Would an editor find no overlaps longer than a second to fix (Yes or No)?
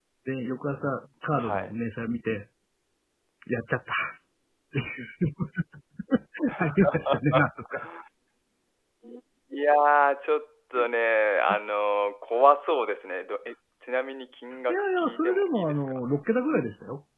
No